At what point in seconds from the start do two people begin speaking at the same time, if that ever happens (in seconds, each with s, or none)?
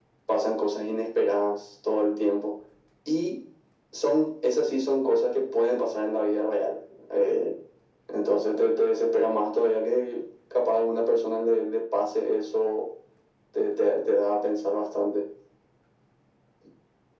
none